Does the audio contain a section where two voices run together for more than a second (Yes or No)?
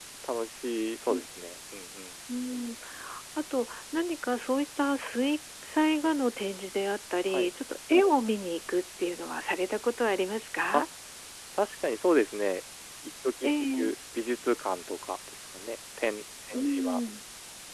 No